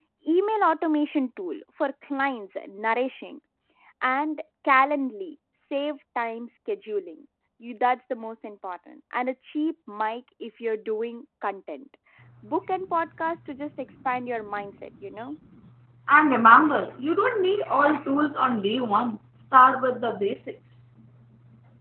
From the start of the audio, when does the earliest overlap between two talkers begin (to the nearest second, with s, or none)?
none